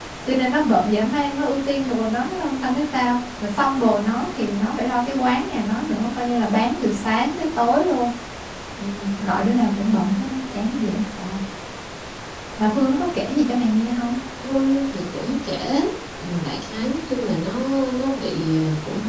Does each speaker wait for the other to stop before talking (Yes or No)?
Yes